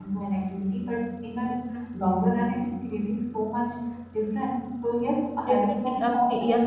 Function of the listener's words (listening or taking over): taking over